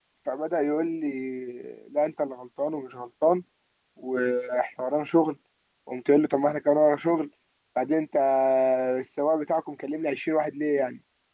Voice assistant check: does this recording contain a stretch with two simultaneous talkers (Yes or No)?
No